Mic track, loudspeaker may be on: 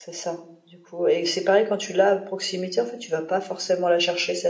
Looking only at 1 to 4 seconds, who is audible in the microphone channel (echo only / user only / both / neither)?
echo only